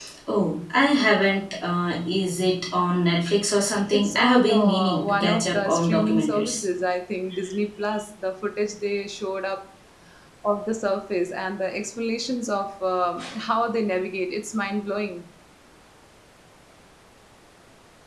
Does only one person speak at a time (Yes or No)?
No